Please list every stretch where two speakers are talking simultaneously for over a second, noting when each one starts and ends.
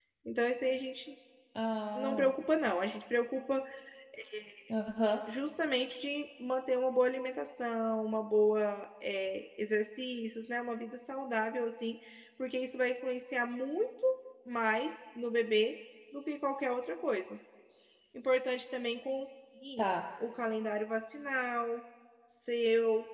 none

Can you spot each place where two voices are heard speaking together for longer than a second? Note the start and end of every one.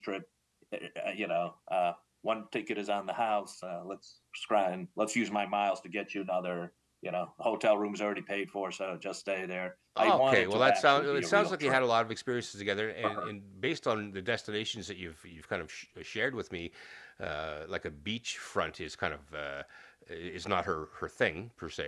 10.0-11.8

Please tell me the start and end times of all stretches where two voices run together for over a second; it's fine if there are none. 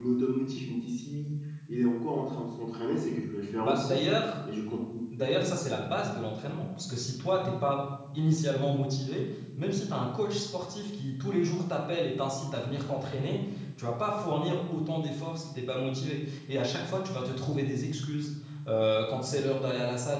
none

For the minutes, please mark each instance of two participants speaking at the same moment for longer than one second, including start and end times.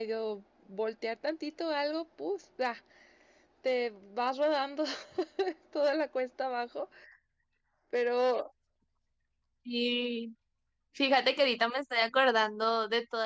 none

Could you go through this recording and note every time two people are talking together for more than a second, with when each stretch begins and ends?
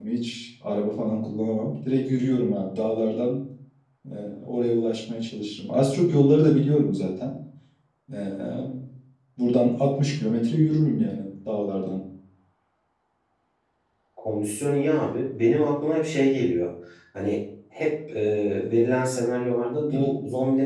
none

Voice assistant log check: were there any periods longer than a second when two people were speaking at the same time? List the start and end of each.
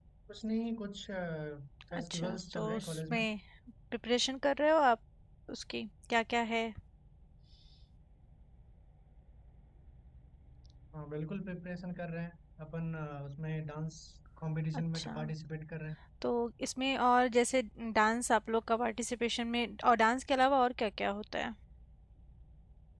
2.0-3.2

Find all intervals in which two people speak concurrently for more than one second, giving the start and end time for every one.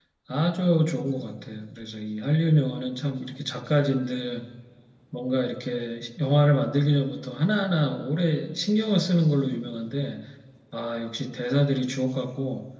none

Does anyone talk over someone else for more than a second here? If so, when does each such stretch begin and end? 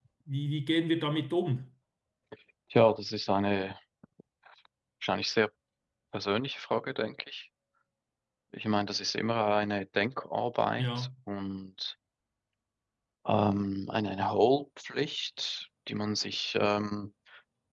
none

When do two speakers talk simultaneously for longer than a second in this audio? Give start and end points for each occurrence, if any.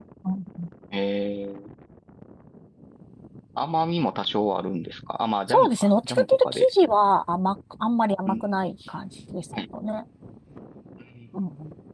5.5-6.7

